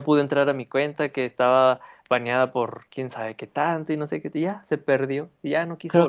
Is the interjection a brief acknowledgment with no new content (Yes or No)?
No